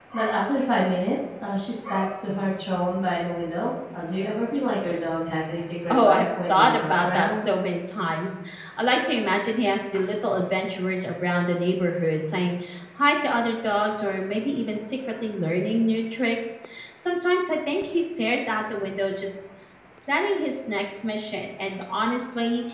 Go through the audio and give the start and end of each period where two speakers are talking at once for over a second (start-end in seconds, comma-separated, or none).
5.9-7.5